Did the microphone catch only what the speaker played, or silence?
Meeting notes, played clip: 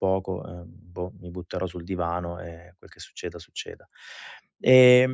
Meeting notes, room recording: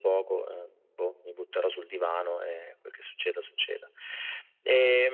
Yes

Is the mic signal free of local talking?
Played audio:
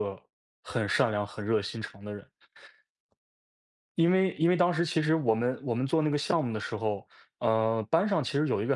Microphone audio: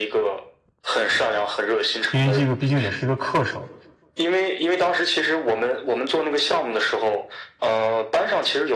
No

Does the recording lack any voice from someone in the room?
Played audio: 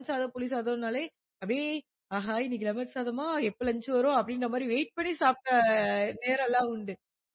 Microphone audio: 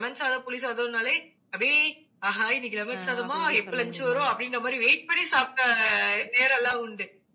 No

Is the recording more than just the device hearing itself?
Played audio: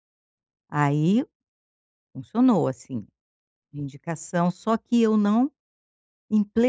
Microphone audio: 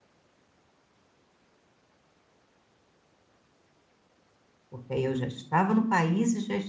Yes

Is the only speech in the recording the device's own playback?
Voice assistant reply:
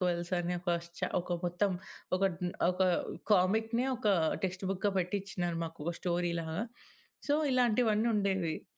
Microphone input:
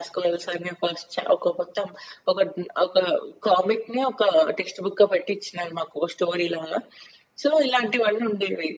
Yes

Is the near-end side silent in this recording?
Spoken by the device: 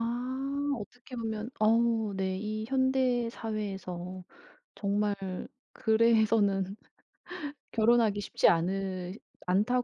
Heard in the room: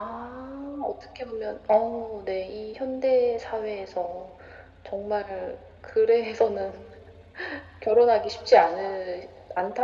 Yes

